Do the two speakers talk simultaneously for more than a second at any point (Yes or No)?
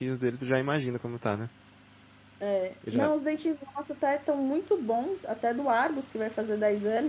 No